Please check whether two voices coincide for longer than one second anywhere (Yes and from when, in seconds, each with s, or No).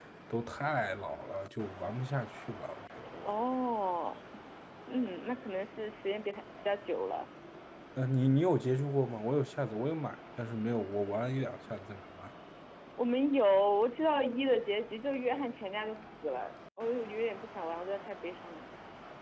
No